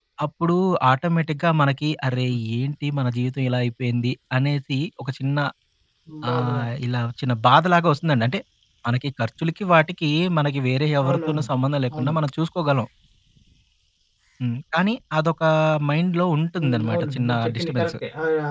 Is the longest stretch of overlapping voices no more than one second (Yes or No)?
No